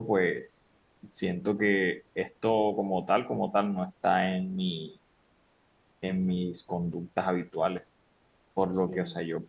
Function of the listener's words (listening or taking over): listening